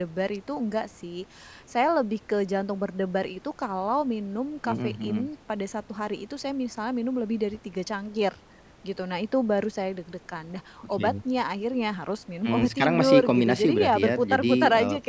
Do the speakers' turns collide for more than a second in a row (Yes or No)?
Yes